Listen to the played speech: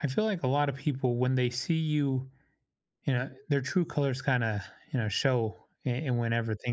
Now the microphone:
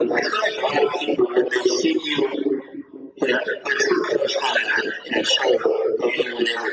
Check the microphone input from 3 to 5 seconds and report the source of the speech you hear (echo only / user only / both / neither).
echo only